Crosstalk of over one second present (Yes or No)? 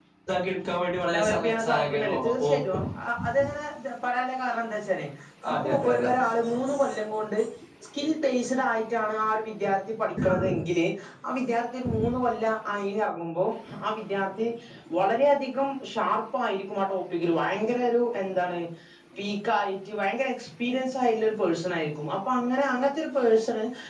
Yes